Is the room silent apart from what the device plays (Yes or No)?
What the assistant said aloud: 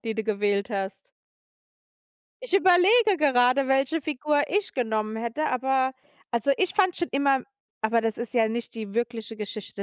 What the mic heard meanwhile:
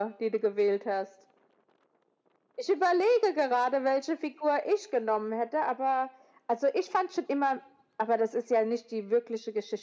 Yes